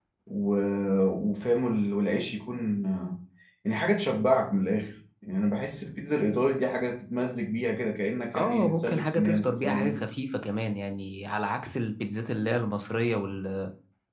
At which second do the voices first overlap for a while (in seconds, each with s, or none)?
8.3 s